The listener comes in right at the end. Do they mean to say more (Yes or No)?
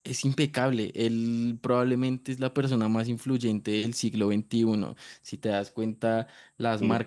No